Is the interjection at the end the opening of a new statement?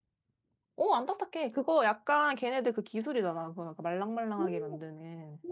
Yes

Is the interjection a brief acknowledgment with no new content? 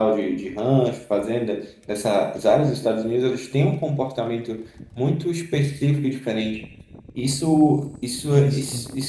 Yes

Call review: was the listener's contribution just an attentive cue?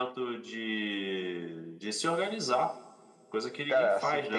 No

